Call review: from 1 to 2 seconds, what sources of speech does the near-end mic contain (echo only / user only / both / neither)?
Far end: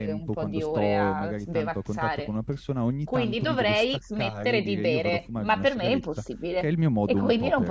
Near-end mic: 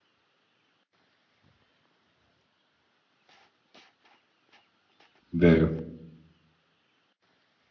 neither